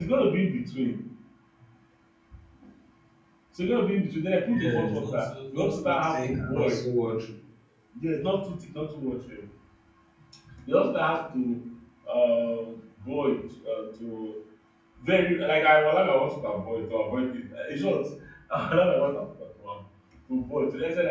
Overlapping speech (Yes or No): Yes